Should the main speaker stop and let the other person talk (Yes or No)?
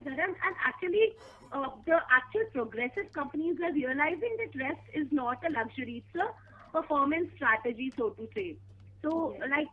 No